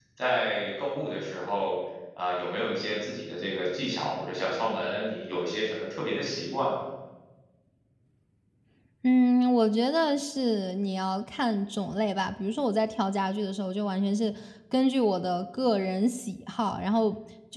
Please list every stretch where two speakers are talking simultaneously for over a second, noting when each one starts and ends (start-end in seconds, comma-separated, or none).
none